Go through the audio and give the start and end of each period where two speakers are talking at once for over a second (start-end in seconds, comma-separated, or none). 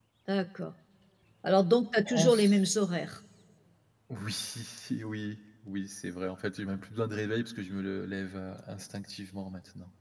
none